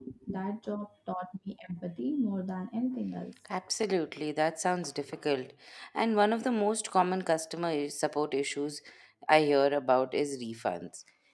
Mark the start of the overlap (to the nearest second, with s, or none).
none